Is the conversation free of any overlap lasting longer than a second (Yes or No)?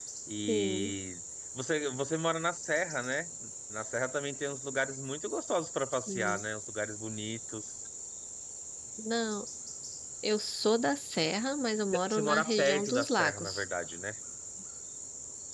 No